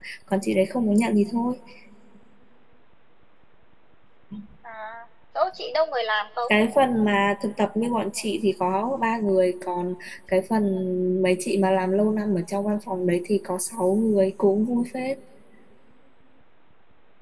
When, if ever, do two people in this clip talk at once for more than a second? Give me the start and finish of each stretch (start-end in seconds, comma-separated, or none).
none